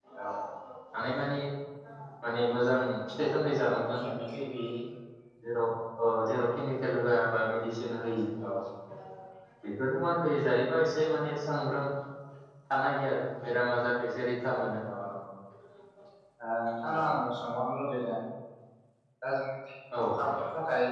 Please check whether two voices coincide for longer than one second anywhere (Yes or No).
No